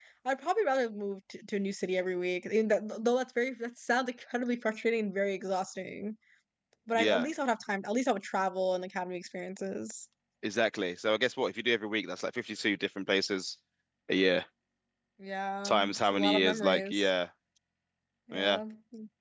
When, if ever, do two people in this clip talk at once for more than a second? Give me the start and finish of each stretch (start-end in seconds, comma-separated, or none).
15.6-17.1